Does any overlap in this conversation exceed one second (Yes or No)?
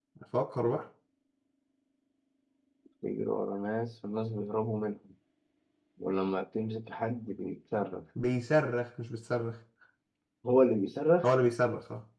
No